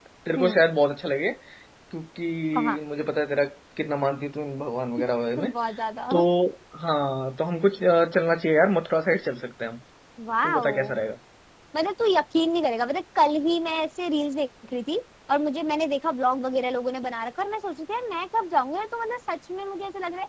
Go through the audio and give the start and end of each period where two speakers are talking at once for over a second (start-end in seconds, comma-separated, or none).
none